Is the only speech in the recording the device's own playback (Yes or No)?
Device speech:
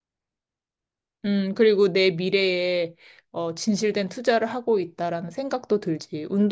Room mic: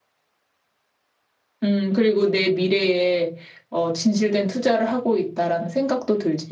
Yes